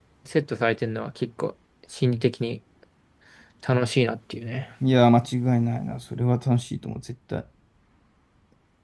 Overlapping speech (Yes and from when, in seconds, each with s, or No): No